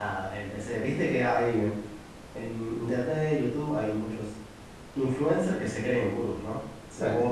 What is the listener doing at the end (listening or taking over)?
listening